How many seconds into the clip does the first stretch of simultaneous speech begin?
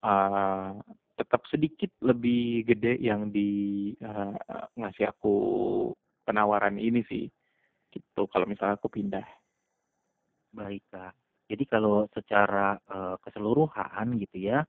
none

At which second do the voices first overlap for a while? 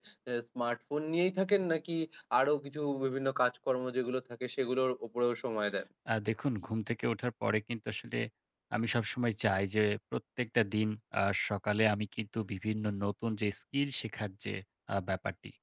none

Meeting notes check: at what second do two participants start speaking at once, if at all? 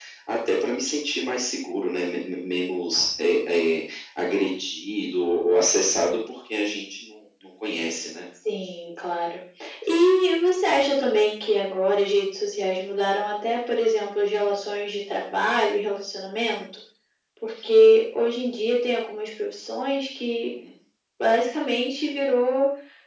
none

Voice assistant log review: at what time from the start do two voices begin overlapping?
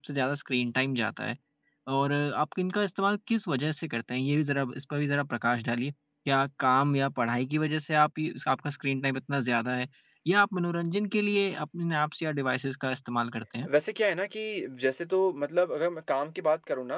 none

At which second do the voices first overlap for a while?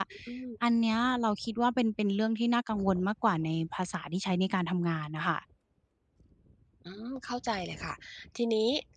none

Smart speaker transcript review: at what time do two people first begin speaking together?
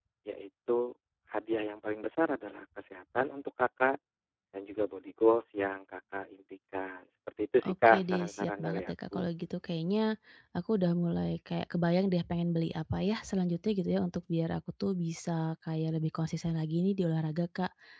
7.6 s

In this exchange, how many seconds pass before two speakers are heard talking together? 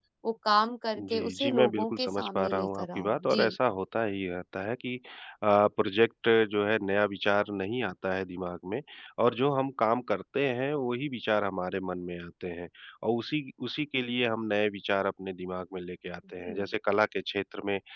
1.0 s

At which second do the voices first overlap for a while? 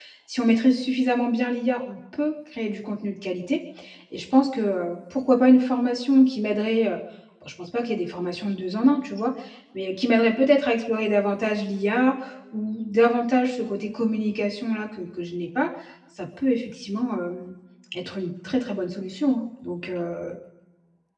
none

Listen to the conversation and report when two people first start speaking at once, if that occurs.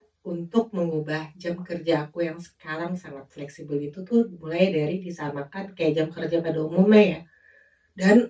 none

